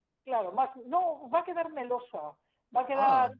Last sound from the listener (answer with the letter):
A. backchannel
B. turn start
A